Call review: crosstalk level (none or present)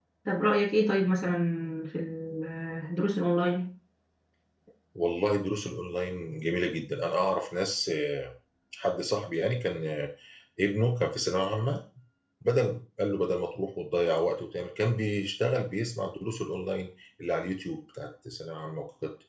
none